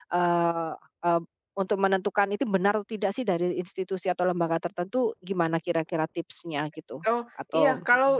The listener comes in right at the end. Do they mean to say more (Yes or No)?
Yes